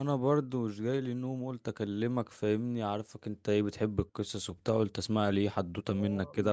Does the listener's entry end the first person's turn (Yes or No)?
Yes